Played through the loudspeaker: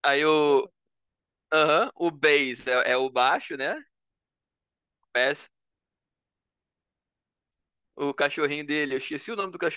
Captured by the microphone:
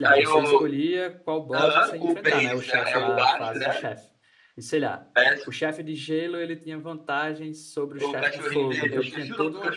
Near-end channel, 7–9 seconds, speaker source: both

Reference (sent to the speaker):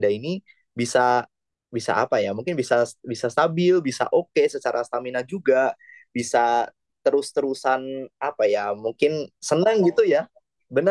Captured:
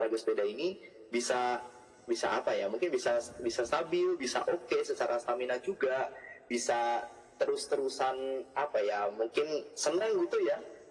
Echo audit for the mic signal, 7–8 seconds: echo only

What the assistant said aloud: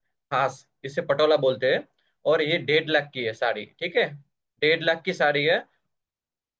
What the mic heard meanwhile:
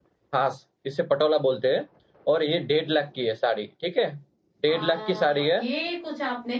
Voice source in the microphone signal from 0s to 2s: echo only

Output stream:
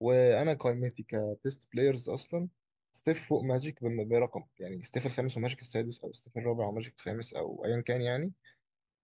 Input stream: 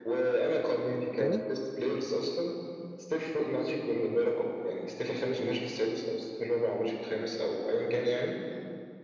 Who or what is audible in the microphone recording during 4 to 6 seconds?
echo only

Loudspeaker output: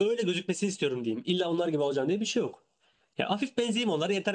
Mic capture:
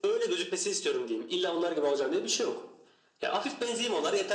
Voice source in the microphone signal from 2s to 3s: echo only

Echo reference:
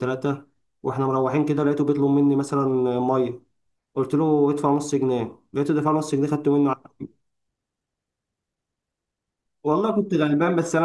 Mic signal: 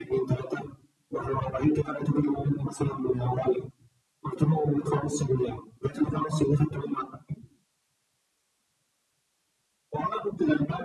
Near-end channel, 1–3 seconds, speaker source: echo only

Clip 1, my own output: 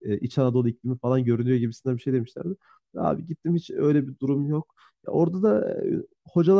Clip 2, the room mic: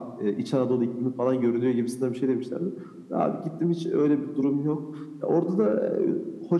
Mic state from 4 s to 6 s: echo only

